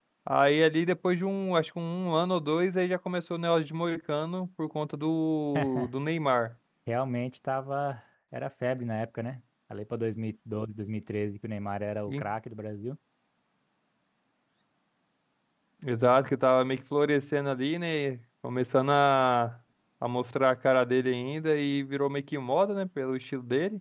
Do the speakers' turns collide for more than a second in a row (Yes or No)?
No